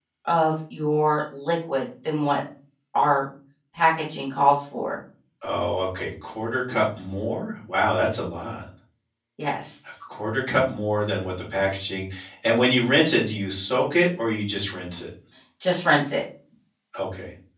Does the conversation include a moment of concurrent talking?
No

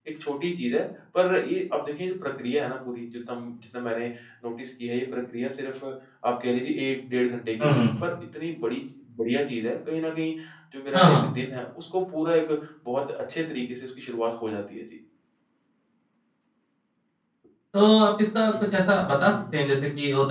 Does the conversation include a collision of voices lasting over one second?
No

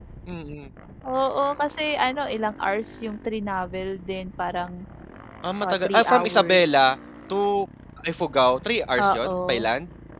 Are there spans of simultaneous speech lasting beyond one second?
Yes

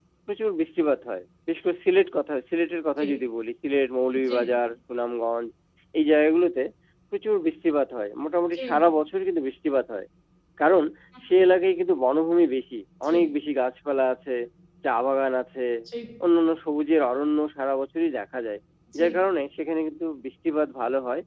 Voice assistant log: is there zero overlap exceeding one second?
Yes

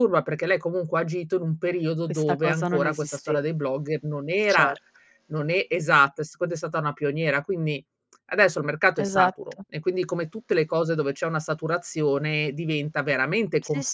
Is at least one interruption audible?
Yes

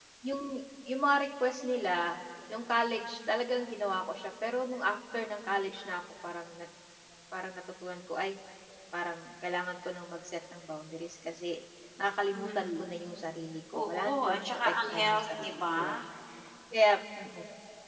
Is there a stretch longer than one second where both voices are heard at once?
Yes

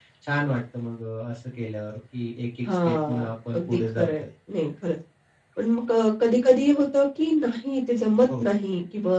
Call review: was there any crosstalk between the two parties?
Yes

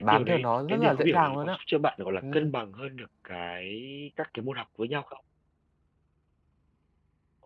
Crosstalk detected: Yes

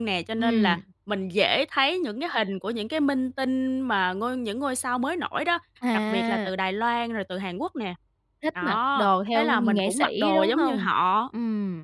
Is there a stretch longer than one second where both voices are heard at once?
Yes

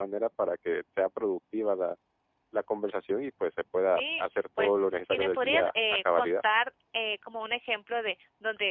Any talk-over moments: Yes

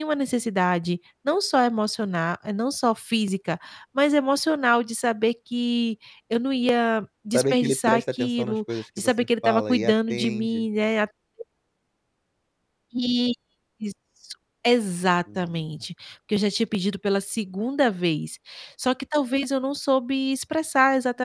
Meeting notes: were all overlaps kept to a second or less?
No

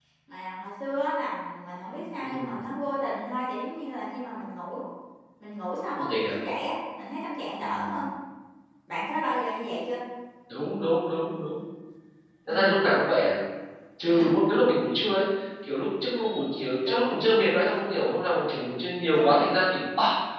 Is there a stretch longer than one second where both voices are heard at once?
No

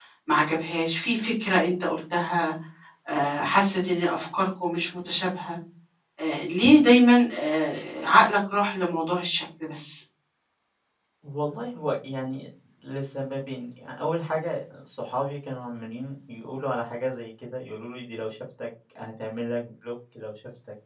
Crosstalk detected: No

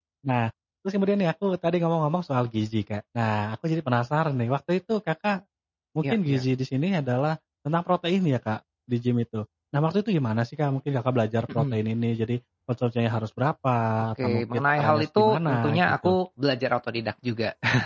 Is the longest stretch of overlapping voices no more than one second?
No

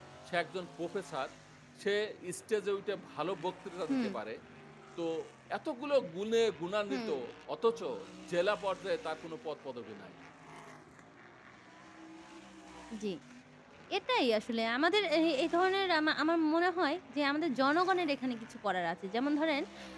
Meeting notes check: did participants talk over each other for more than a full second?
No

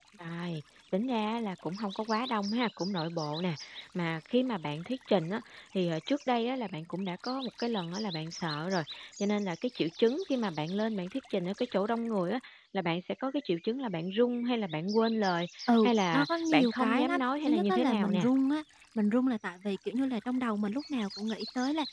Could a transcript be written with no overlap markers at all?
No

